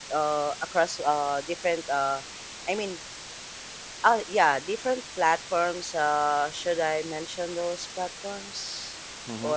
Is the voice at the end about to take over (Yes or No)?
Yes